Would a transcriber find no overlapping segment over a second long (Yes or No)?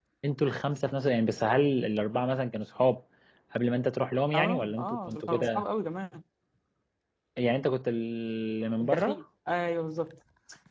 No